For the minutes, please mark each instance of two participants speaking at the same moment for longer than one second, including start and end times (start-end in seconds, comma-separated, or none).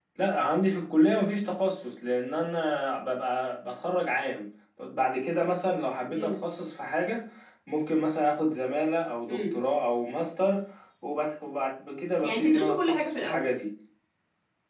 12.2-13.4